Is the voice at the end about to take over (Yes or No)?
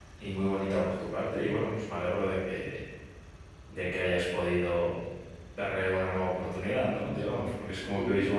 Yes